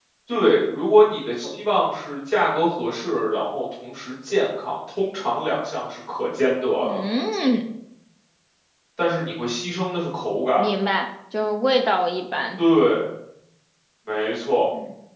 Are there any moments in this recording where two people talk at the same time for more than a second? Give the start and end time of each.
none

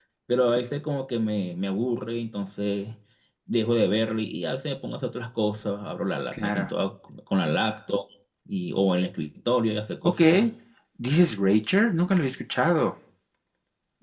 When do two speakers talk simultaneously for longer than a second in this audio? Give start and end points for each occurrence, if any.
none

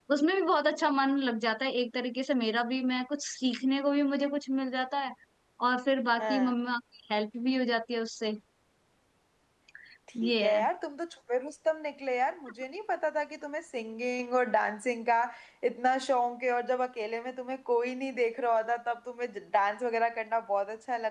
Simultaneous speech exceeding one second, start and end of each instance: none

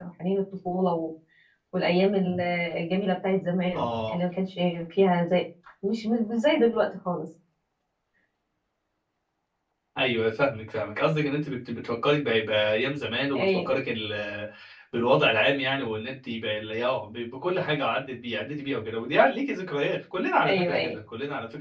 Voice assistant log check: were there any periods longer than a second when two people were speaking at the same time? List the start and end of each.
none

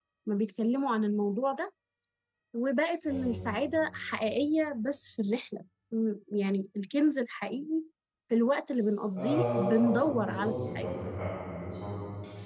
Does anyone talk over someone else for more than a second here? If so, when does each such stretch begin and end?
9.2-10.9

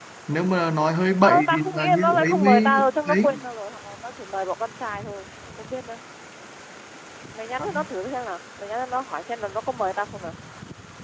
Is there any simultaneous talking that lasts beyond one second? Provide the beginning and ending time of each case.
1.2-3.3

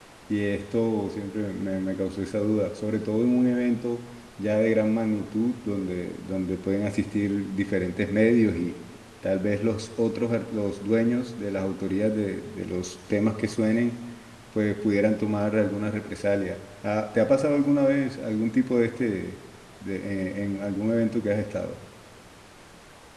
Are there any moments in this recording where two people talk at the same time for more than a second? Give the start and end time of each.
none

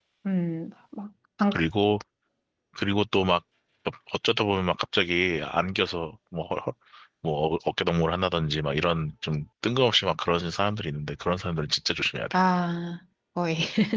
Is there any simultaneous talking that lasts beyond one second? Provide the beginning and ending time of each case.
none

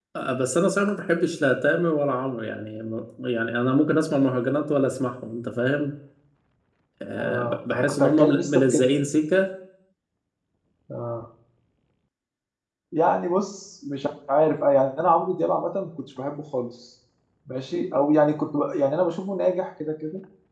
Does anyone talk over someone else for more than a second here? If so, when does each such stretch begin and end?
7.1-8.9

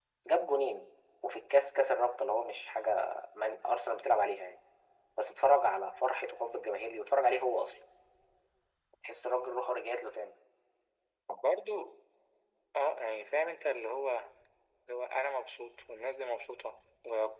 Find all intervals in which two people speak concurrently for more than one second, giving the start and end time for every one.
none

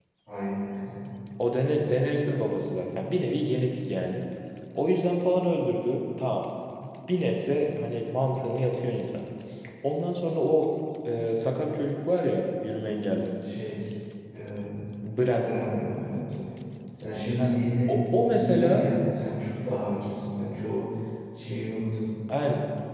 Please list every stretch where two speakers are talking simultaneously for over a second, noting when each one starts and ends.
17.4-18.8

